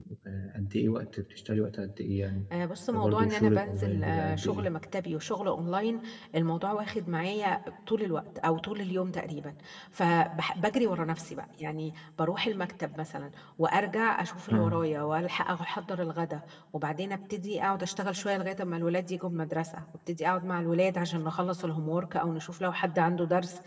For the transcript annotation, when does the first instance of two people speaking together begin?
2.9 s

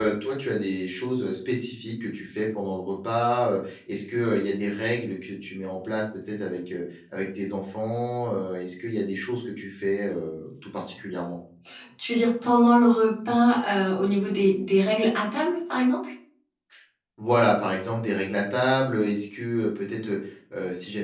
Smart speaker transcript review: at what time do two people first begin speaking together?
none

